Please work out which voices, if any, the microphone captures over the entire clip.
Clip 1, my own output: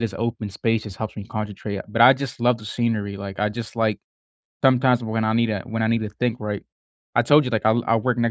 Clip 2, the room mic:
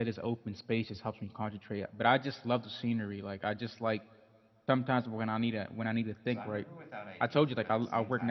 both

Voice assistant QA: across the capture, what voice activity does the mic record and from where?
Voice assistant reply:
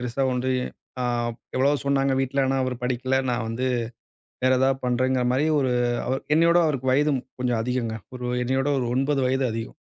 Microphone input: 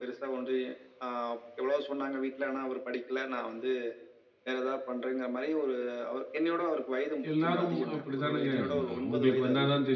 both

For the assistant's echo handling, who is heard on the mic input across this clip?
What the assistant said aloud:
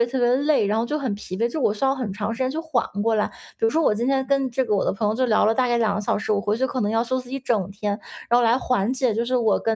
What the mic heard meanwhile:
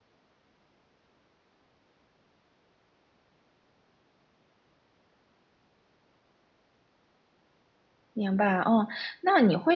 user only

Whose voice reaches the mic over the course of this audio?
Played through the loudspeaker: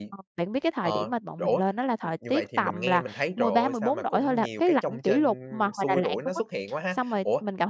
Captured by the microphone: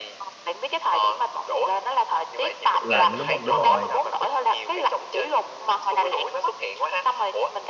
both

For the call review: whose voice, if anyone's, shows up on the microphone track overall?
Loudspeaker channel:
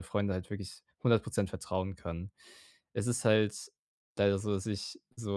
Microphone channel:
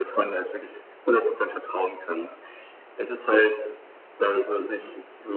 echo only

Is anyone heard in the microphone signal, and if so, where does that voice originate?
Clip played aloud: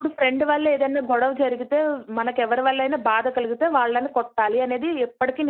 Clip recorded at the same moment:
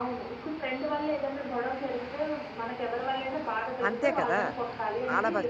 both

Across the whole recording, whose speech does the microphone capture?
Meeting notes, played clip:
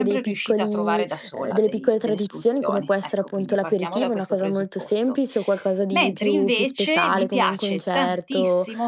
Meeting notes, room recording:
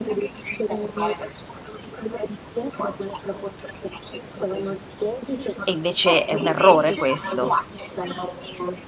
both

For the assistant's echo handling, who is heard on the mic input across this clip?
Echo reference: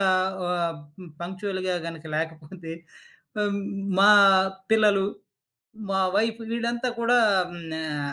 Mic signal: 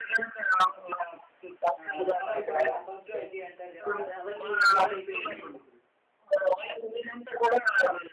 both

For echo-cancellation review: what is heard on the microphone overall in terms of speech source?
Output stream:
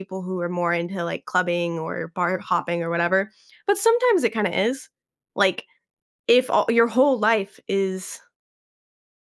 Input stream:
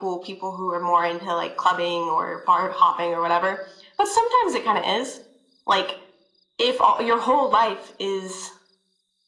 echo only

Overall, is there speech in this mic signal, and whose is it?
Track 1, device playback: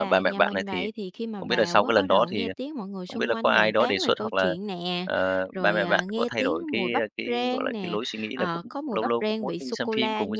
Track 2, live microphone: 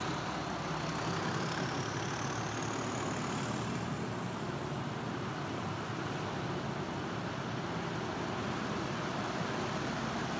neither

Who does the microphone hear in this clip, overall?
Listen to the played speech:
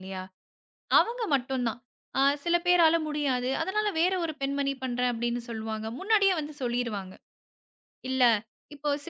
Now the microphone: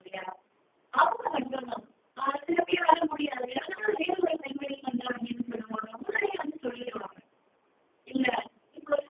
echo only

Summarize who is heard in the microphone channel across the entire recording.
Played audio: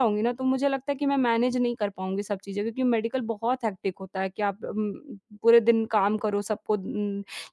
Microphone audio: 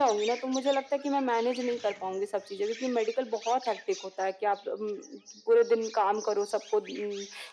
echo only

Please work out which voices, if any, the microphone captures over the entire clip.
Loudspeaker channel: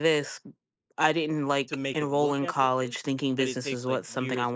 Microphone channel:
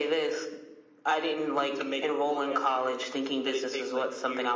echo only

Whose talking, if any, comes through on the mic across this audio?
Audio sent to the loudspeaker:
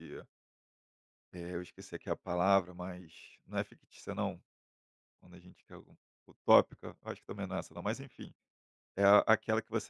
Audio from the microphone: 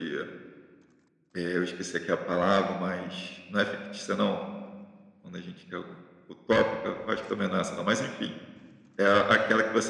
echo only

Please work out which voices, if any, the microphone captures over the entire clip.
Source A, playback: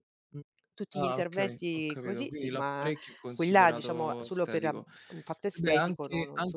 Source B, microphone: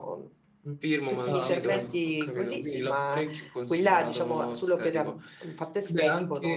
both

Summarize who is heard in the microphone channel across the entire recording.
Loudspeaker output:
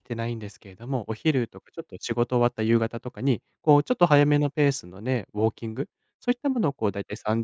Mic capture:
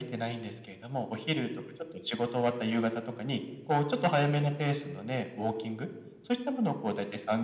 echo only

